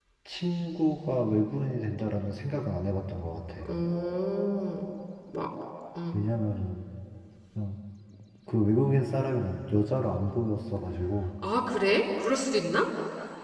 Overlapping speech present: No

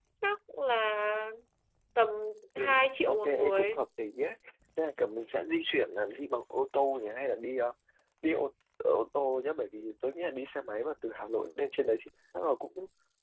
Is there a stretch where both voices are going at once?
Yes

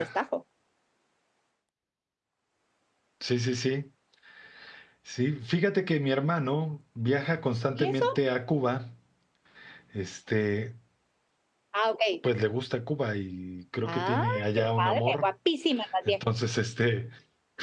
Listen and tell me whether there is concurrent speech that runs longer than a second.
Yes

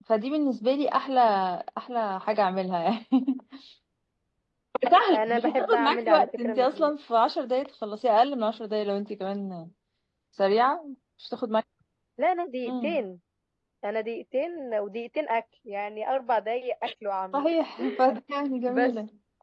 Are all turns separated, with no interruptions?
No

